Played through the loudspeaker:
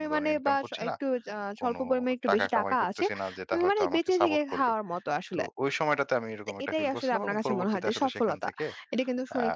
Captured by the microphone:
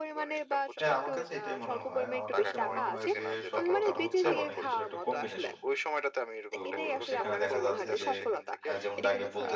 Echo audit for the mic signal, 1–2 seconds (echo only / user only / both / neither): both